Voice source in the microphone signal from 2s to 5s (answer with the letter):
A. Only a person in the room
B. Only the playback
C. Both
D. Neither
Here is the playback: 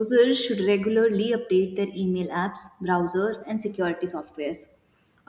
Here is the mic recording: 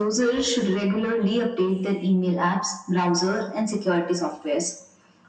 B